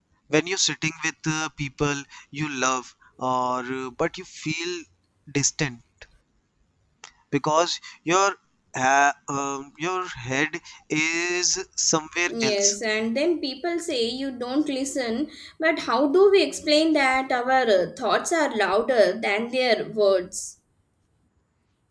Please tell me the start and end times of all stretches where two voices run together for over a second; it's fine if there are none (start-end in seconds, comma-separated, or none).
none